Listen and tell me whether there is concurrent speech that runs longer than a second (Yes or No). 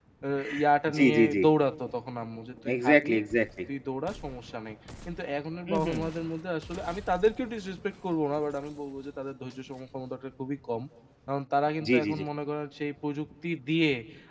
No